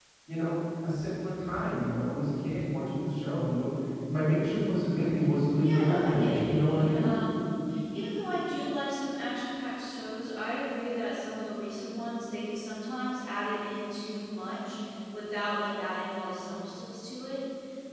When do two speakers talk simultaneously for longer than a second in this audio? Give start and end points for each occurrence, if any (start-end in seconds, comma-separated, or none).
5.6-7.1